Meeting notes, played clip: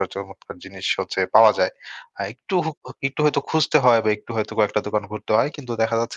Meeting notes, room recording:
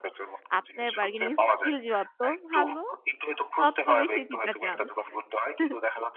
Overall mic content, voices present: both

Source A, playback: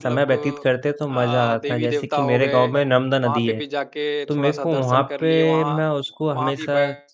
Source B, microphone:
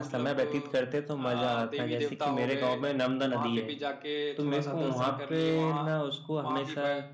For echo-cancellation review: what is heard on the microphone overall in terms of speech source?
echo only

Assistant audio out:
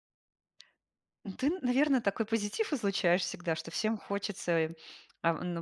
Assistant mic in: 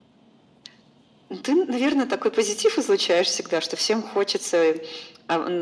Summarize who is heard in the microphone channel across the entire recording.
echo only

